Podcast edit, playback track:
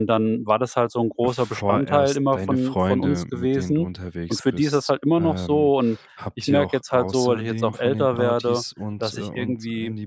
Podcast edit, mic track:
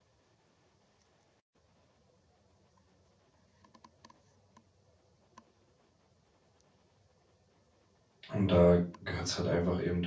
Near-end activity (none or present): present